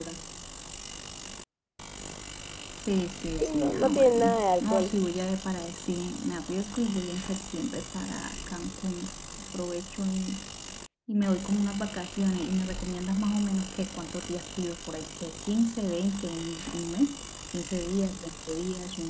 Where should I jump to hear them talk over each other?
3.4 s

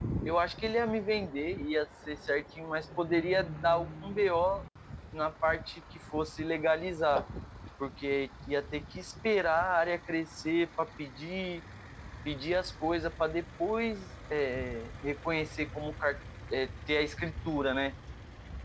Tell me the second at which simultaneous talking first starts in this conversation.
none

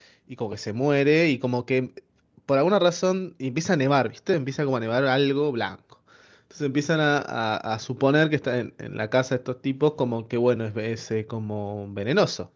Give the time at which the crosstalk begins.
none

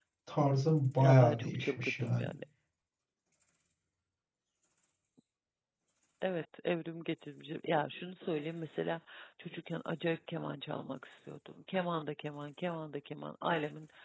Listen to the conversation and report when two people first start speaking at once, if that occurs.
1.0 s

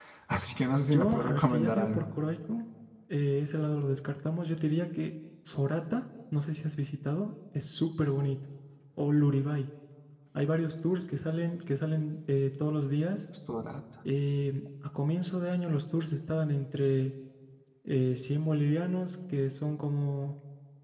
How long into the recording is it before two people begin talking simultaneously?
0.8 s

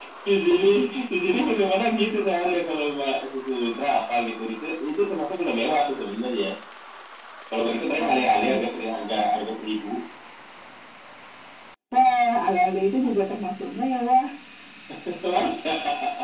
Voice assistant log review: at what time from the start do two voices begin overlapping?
8.0 s

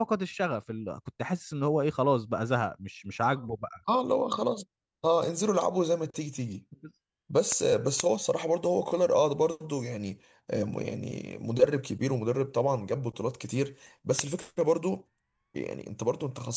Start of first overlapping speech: none

